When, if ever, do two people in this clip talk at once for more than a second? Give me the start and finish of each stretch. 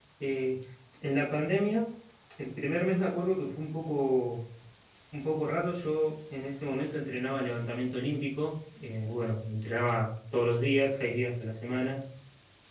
none

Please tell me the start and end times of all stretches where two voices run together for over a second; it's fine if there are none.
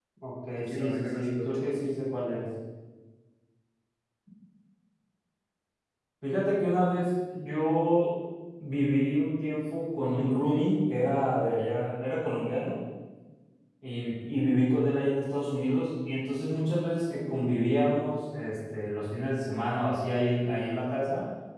0.5-1.9

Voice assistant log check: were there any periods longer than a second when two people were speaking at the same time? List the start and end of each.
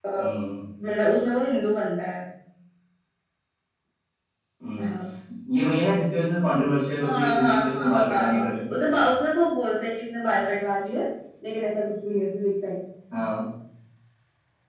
7.0-8.4

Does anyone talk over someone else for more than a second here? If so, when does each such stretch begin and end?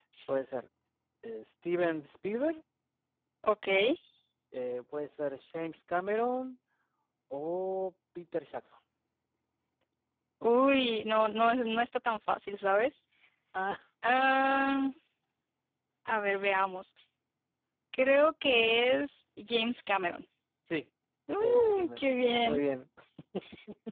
21.4-22.6

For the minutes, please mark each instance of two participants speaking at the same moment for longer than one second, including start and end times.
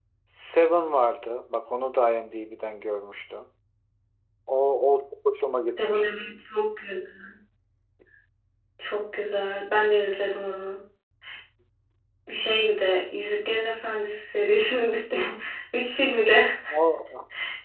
none

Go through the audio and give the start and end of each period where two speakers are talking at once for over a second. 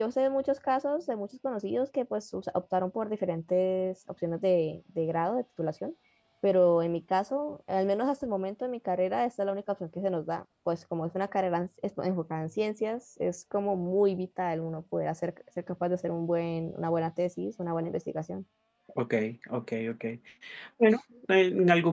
none

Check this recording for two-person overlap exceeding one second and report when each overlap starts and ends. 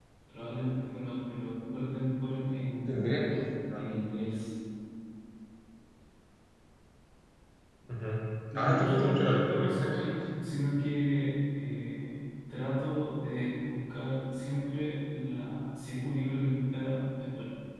8.6-10.0

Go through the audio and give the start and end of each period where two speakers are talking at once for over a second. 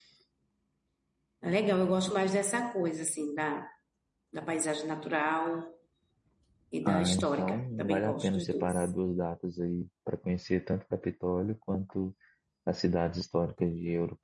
6.8-8.8

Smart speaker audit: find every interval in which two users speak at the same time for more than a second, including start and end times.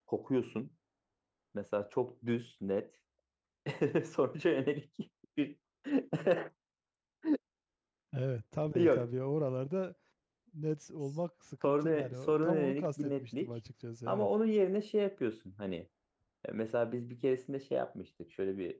11.6-13.5

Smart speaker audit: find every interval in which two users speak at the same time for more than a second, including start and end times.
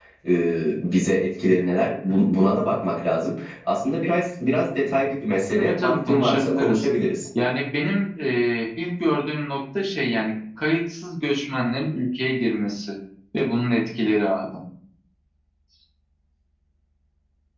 5.6-6.8

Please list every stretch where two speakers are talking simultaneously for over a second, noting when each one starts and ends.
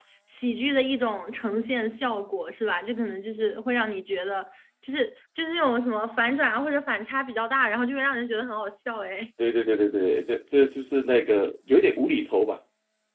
none

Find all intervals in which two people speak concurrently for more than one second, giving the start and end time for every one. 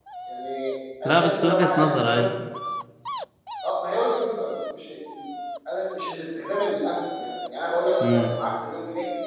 1.0-2.3

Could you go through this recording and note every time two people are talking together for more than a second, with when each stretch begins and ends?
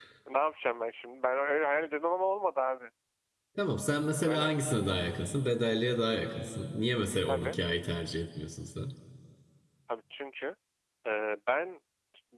none

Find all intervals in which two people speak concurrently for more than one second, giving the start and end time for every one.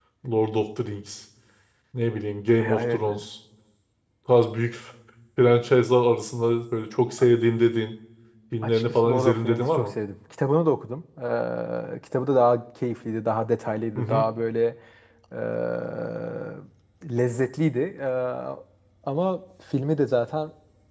8.6-9.9

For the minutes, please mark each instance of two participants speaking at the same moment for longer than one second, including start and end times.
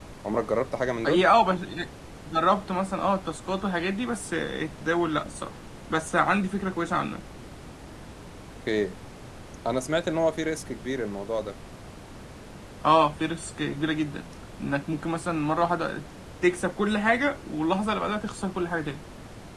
none

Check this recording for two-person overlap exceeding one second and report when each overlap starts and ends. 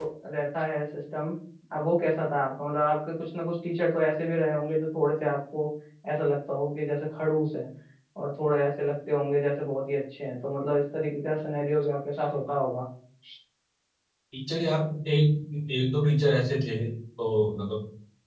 none

